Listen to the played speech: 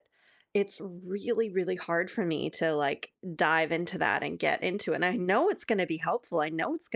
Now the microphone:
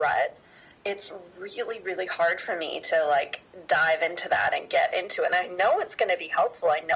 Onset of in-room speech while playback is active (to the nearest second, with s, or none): none